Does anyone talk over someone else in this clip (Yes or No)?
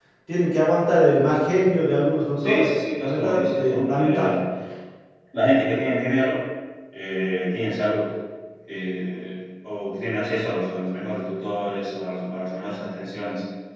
Yes